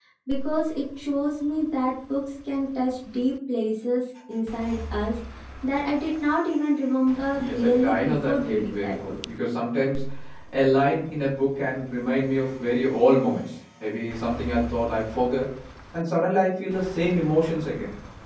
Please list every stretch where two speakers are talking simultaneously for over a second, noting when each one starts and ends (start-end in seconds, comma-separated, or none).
7.3-9.1